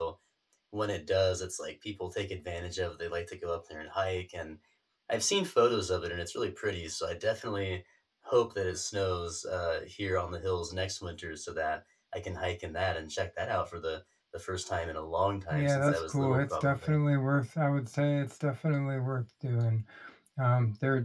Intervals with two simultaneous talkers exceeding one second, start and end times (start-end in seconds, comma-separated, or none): 15.5-17.0